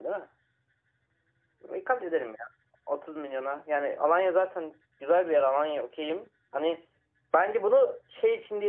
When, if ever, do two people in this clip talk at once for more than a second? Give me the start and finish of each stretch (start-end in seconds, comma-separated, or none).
none